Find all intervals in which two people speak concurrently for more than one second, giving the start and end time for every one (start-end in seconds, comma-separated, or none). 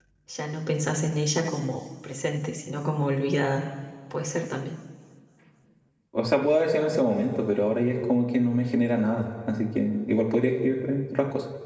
none